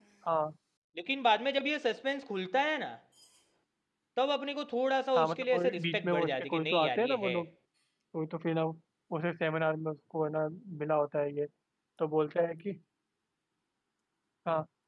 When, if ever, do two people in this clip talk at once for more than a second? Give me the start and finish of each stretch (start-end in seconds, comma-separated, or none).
5.2-7.4